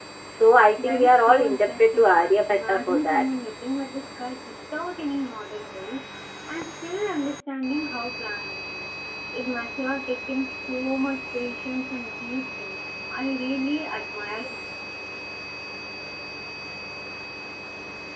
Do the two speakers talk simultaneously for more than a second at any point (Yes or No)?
Yes